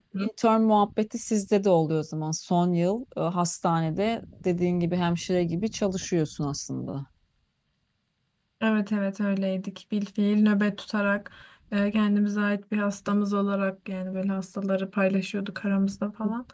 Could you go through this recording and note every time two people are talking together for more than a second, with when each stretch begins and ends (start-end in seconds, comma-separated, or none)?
none